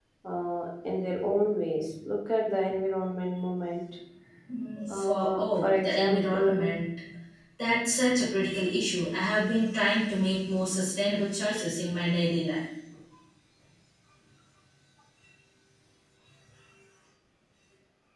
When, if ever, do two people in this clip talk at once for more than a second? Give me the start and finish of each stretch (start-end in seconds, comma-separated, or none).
4.9-6.7